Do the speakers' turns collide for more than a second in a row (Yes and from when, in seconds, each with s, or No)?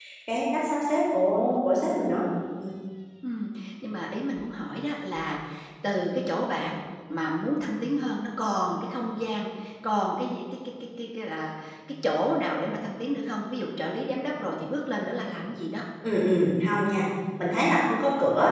No